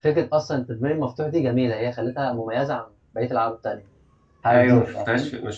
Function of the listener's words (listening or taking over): taking over